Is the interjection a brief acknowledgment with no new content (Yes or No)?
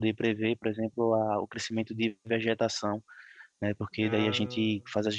Yes